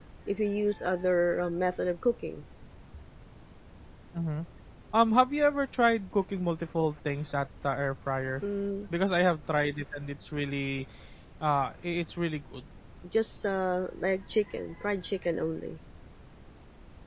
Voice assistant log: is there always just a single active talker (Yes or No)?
Yes